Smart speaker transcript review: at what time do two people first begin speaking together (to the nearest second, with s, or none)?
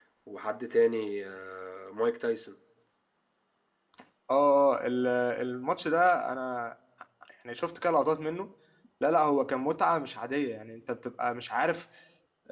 none